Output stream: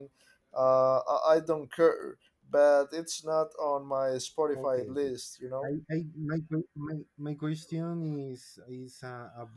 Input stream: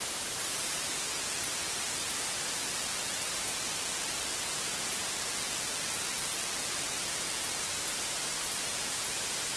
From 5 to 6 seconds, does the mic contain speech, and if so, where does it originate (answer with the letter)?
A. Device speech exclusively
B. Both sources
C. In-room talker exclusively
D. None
D